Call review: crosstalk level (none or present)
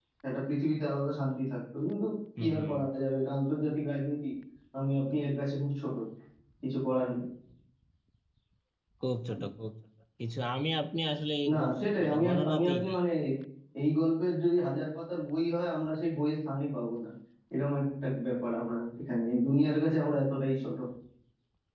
present